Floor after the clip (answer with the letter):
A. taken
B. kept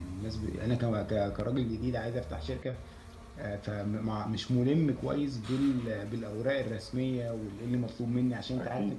B